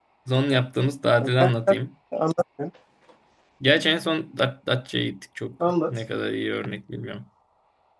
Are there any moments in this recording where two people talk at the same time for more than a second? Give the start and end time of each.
none

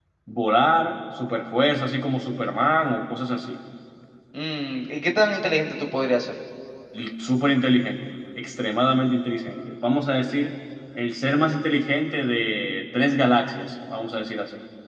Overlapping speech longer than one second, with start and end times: none

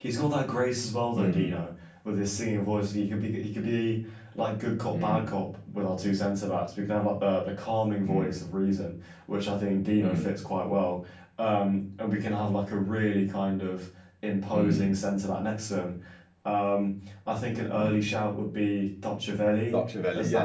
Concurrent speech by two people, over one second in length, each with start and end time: none

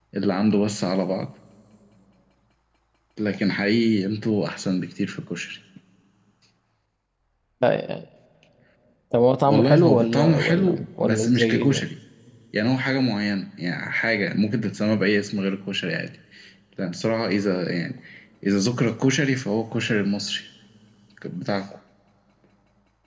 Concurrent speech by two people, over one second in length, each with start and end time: 9.5-11.9

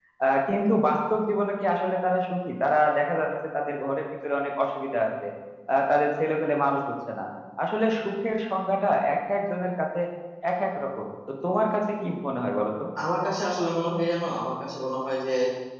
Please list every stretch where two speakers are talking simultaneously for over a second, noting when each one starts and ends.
none

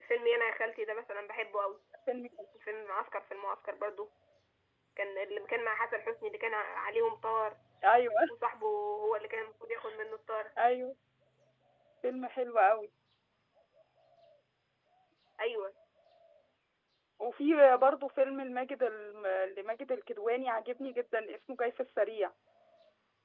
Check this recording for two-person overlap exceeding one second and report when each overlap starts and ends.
none

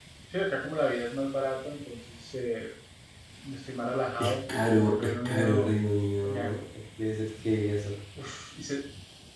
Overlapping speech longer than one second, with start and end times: 4.2-5.7

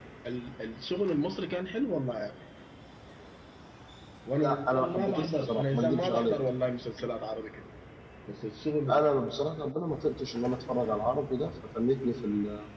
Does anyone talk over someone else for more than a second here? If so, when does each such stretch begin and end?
4.4-6.3

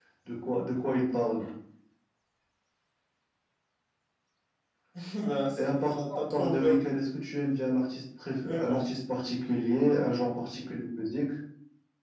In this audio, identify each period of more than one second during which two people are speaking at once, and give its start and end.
5.6-6.8

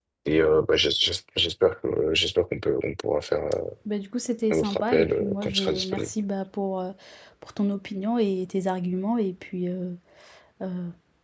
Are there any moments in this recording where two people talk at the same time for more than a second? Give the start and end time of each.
4.5-6.1

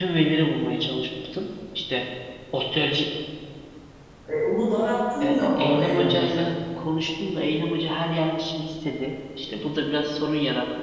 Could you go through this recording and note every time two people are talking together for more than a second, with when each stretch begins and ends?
5.2-6.5

